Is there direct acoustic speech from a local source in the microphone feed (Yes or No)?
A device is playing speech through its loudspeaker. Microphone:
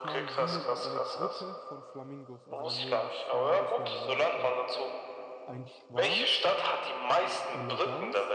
Yes